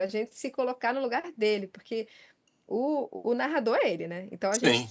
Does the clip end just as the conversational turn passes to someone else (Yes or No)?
No